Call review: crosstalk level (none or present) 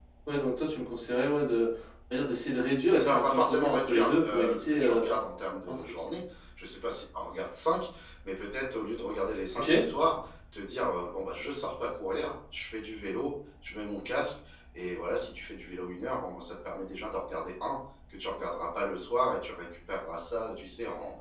present